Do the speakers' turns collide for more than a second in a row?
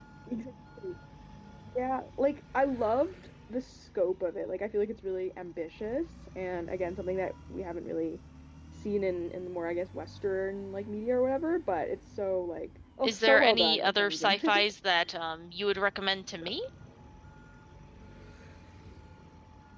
Yes, from 13.0 s

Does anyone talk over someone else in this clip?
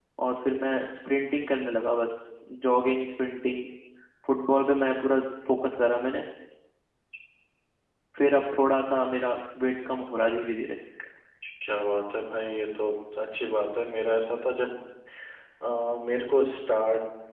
No

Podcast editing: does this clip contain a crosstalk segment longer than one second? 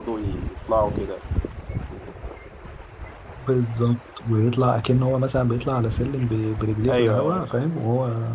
No

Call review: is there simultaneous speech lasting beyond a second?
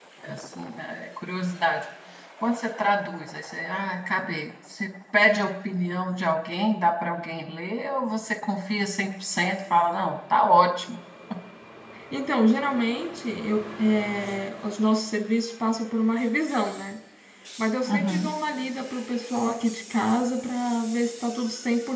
No

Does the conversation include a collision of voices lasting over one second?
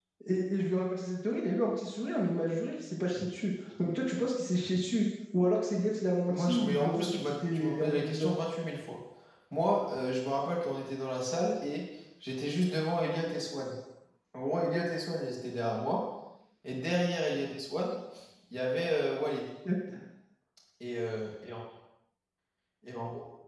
Yes, from 6.3 s

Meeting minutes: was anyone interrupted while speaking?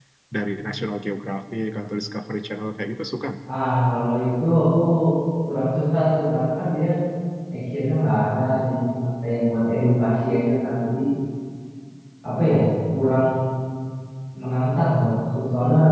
No

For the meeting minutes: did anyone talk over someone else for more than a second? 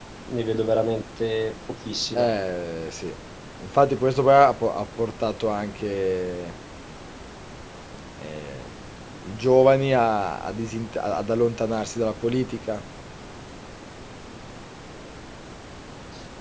No

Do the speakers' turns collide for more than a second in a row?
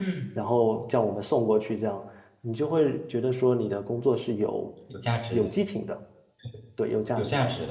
No

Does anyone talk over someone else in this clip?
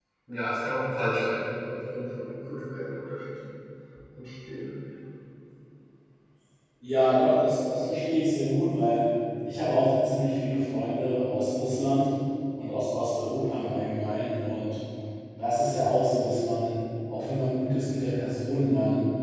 No

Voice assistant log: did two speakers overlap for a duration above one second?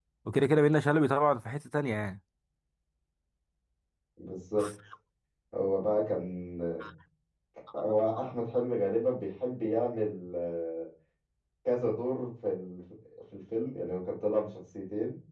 No

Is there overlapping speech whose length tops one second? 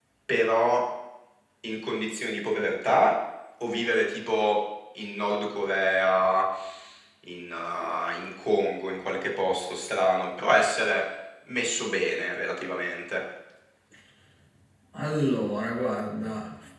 No

